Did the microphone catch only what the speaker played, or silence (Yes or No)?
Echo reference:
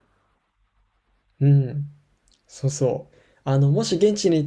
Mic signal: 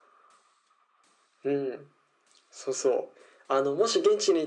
Yes